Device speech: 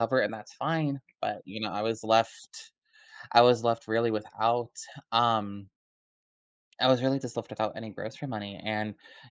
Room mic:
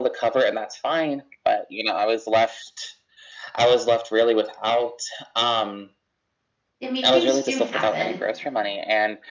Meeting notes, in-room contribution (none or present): present